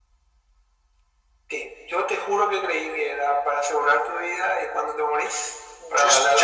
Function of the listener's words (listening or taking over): taking over